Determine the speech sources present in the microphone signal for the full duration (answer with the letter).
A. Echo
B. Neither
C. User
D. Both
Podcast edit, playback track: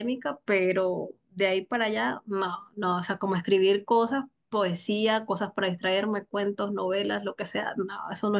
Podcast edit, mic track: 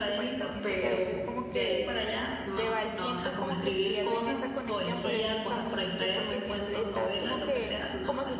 D